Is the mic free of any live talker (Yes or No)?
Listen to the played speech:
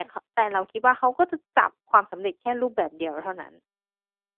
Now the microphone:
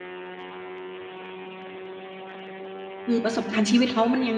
No